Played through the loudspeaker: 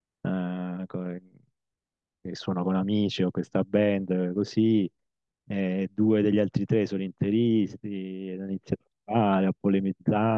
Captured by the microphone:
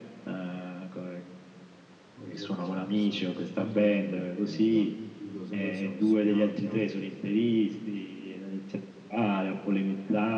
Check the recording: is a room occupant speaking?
Yes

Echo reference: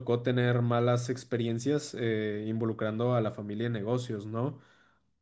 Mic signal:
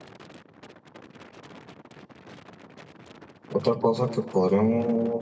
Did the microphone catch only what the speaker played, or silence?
No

